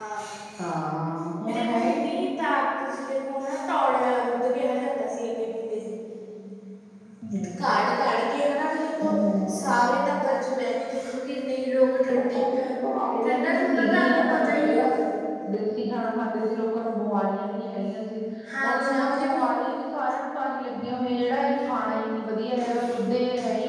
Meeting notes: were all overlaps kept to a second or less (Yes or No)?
No